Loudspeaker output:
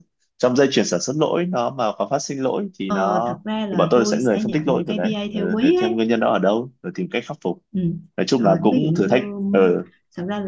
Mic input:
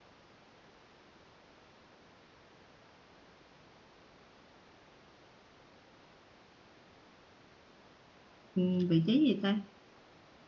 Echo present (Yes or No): No